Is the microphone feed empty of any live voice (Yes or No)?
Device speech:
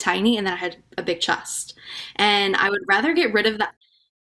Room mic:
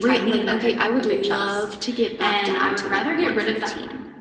No